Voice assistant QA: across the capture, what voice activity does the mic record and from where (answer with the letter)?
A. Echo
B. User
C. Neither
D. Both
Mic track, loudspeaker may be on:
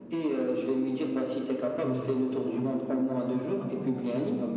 D